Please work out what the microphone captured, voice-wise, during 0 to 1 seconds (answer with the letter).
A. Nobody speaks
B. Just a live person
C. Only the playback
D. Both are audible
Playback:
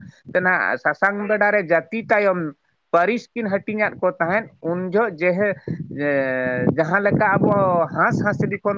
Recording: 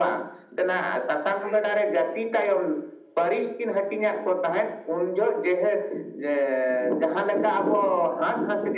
C